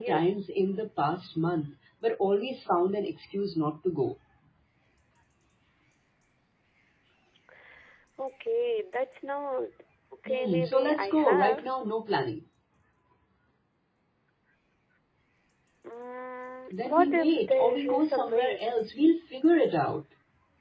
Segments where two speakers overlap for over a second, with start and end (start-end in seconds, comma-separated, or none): 10.3-11.7, 16.8-18.6